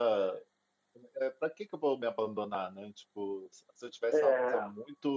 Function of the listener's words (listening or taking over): listening